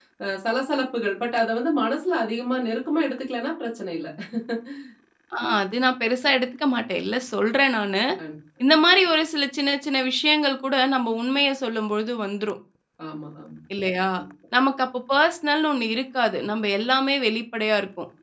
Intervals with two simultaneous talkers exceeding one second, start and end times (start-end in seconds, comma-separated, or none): none